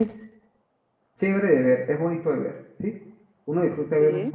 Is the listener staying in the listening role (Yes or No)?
Yes